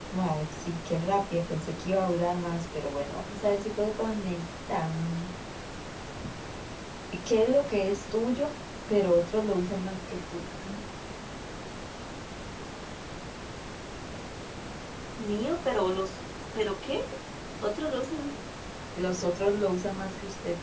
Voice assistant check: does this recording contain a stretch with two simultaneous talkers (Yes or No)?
No